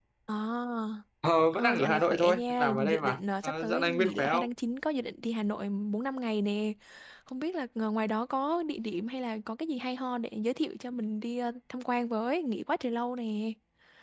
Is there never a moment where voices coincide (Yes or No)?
No